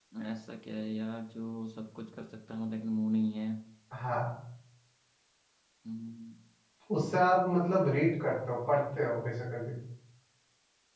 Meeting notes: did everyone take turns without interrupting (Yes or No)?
Yes